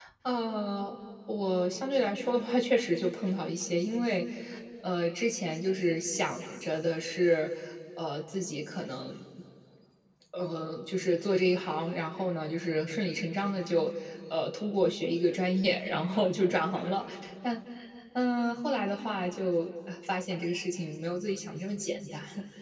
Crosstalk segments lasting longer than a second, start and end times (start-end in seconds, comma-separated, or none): none